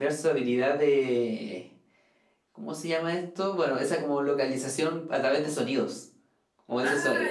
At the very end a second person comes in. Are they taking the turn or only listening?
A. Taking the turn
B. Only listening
B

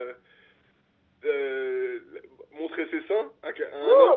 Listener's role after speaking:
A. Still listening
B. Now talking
B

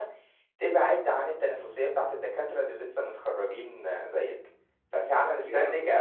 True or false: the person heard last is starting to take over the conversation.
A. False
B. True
A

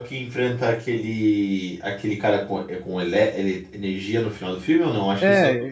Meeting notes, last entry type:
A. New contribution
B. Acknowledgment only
A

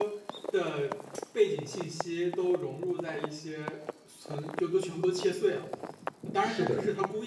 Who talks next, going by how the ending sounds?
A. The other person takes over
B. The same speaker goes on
B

